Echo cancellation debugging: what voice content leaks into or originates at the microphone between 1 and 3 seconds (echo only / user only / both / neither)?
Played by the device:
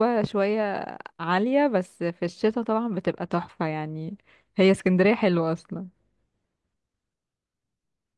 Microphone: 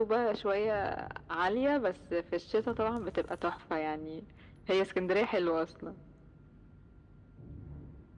echo only